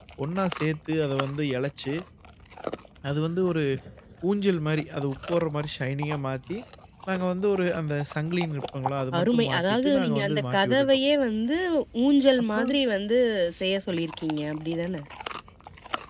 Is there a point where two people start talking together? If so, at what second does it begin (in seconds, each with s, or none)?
9.2 s